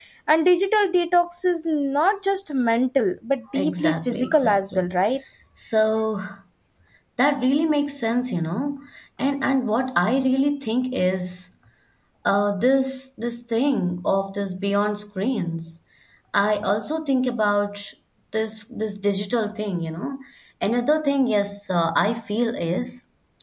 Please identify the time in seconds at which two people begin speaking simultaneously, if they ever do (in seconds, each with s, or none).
3.5 s